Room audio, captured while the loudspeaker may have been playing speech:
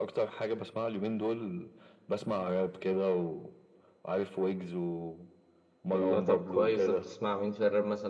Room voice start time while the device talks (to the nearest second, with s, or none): 6 s